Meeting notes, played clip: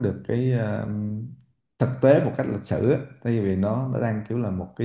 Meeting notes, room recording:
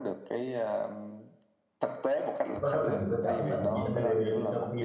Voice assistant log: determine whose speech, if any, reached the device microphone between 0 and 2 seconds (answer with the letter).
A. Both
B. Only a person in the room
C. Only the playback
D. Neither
C